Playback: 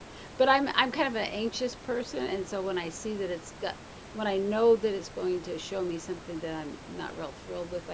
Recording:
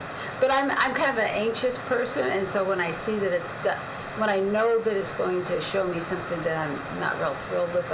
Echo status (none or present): present